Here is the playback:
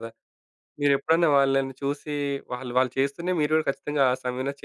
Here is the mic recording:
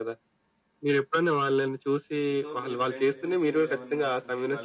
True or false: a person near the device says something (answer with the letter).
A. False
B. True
B